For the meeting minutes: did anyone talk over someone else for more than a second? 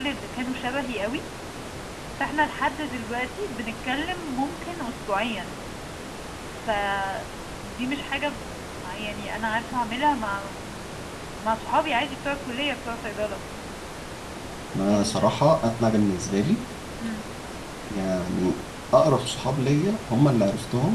No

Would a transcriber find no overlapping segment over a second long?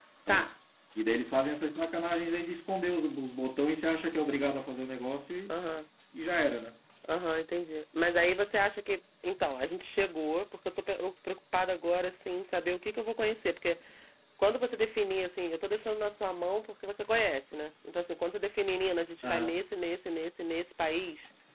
Yes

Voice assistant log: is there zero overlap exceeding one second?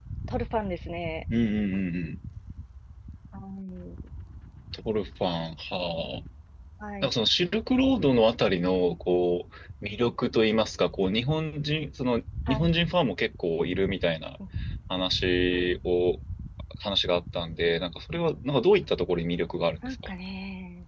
Yes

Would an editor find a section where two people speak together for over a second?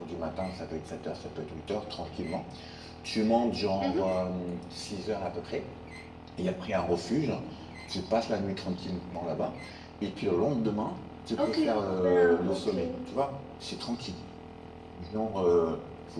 Yes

